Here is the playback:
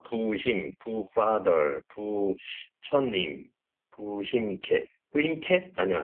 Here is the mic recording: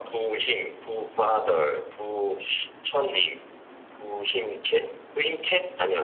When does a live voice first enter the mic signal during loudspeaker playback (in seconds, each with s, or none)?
none